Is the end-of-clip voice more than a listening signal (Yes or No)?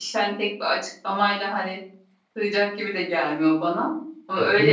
No